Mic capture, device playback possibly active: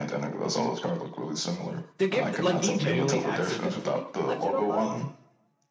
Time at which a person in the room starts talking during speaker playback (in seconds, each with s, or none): 2.0 s